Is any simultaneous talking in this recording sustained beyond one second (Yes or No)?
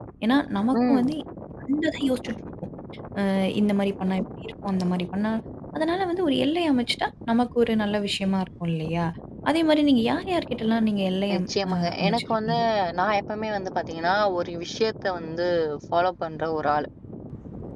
Yes